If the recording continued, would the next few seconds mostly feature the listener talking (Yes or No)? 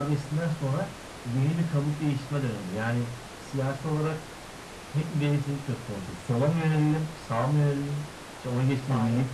No